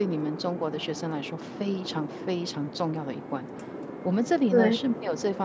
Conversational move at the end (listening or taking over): listening